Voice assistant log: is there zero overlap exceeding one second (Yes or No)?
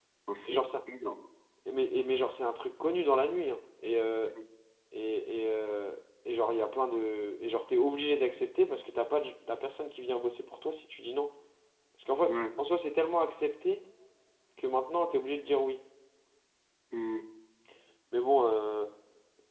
Yes